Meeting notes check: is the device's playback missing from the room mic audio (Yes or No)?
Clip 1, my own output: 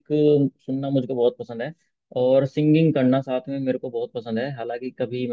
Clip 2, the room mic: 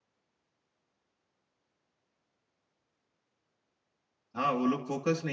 Yes